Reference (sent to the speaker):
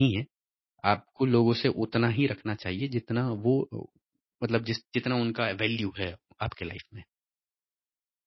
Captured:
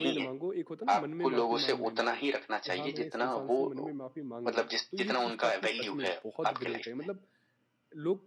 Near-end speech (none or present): present